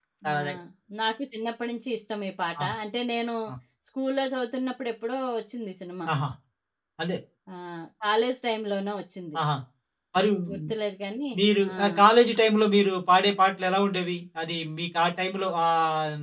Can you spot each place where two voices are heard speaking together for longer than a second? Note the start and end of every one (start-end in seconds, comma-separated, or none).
none